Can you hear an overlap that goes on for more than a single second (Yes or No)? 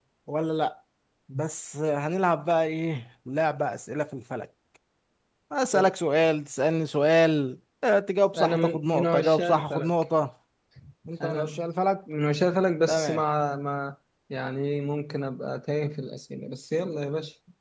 Yes